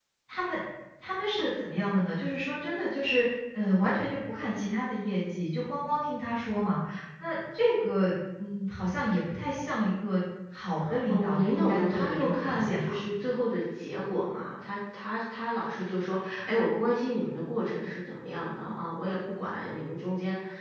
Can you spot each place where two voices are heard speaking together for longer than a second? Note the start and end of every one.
11.1-12.9

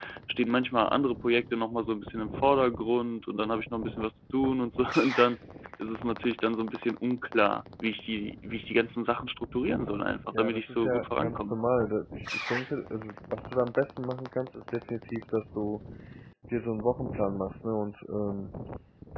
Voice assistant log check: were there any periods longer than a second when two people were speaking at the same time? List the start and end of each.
10.3-11.6

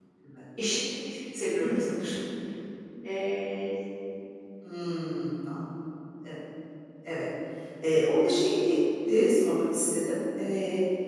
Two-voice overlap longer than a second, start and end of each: none

